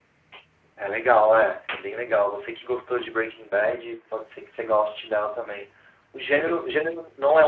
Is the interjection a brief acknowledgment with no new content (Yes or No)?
Yes